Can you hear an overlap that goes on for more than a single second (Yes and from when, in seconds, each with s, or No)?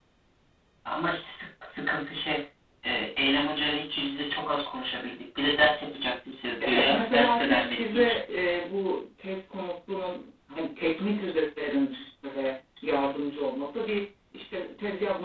Yes, from 6.6 s